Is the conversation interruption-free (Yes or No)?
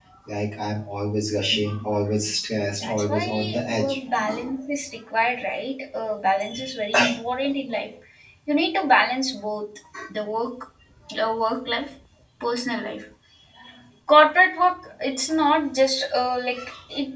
No